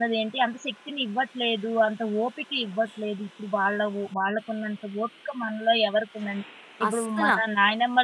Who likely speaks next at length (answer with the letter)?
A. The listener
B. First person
B